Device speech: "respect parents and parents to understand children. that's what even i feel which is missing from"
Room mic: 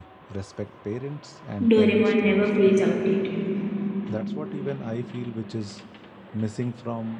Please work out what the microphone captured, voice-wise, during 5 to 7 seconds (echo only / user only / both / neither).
echo only